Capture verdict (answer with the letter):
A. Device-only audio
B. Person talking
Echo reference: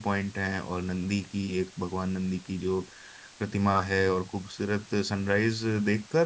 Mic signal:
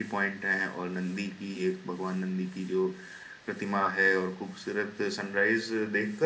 A